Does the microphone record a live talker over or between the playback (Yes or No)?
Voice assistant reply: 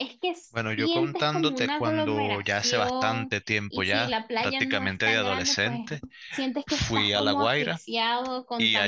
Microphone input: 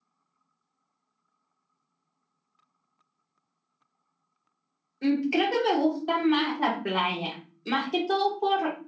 Yes